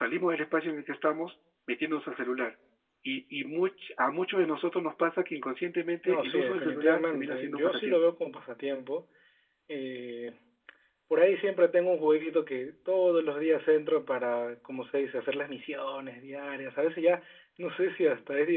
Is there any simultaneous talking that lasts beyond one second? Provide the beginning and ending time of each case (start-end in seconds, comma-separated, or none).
6.0-8.0